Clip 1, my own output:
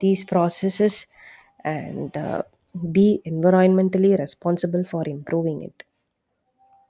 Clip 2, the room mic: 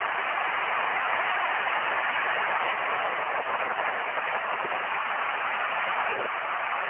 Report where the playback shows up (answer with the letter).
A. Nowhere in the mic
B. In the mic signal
A